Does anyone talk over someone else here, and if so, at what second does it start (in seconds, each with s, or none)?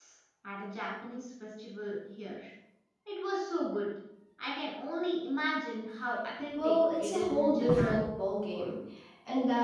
6.5 s